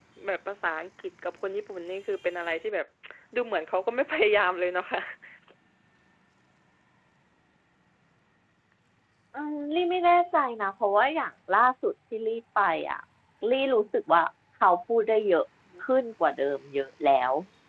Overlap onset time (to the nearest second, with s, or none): none